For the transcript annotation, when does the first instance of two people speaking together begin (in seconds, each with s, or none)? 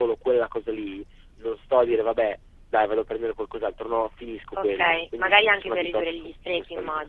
4.5 s